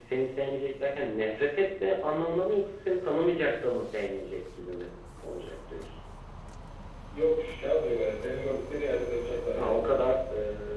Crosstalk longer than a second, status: none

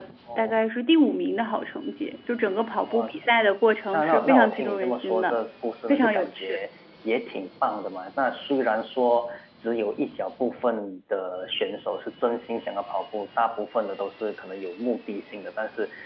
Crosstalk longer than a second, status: present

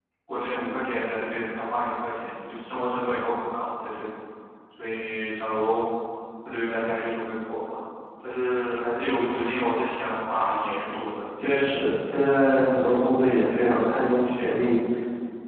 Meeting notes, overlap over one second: none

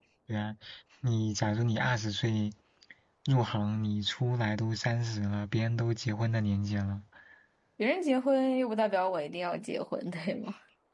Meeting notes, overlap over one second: none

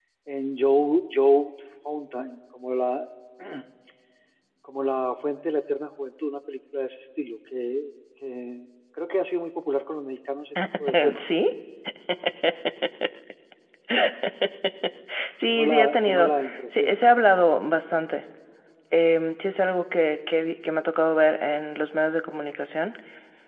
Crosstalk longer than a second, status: present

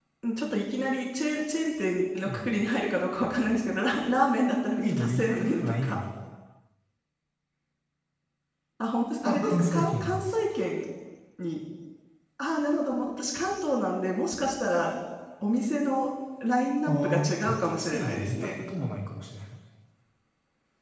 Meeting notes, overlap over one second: present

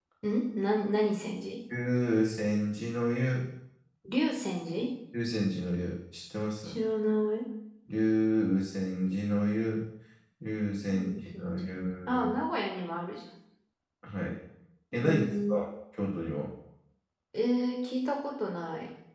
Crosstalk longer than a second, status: present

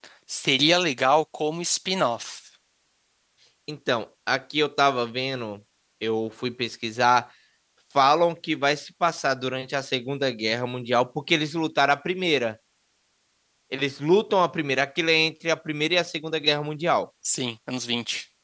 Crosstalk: none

